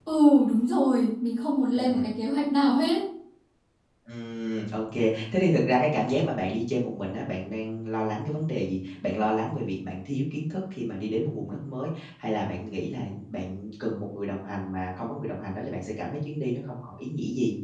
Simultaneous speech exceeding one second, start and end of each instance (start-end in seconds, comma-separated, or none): none